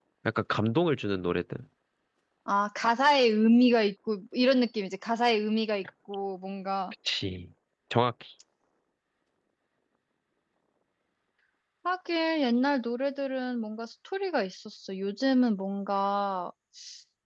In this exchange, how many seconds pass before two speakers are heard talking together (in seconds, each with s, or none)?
none